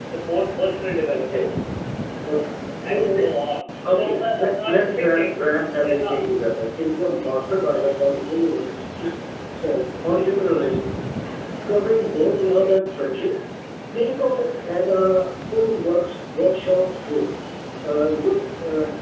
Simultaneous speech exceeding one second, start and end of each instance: 3.9-5.4

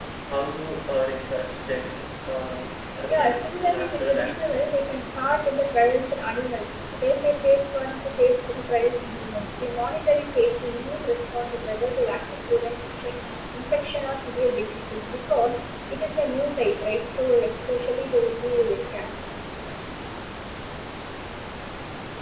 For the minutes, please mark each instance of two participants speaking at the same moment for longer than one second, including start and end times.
3.1-4.9

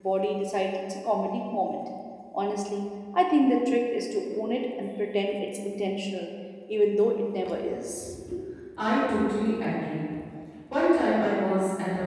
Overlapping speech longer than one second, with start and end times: none

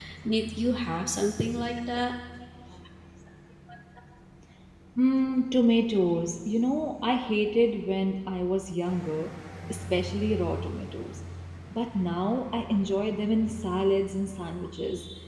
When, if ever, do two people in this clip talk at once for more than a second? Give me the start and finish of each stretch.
none

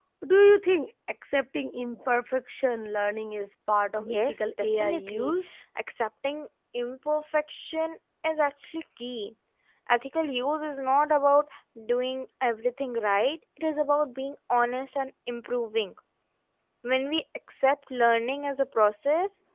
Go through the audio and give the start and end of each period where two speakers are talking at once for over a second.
4.0-5.3

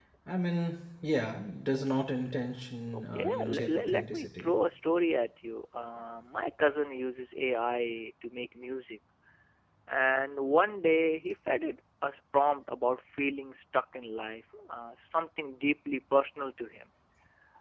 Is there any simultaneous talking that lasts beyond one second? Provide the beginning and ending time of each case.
3.0-4.5

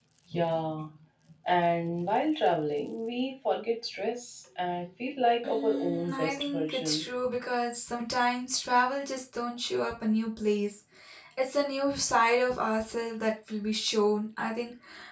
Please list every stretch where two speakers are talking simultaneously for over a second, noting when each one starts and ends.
5.5-7.0

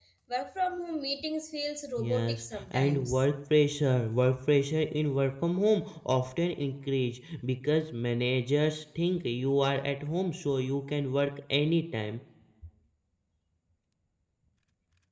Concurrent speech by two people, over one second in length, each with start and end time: 2.0-3.2

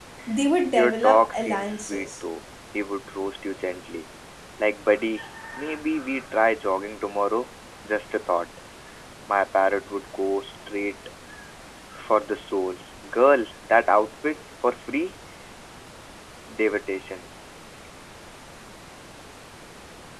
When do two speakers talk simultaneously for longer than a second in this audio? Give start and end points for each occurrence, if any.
0.7-2.1

